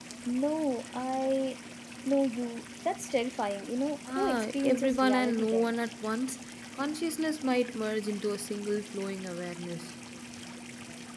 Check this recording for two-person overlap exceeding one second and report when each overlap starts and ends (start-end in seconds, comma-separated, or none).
4.2-5.7